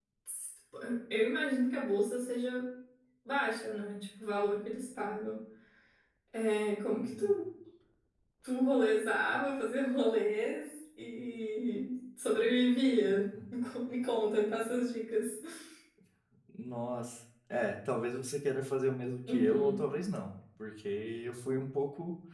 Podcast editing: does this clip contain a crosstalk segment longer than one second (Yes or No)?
No